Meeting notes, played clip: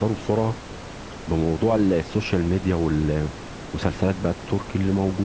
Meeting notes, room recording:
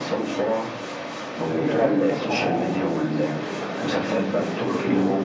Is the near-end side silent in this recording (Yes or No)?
No